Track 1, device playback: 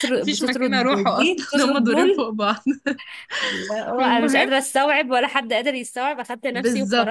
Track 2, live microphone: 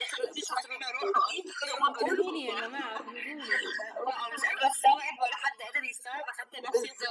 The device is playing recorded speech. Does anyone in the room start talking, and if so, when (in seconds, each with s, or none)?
1.9 s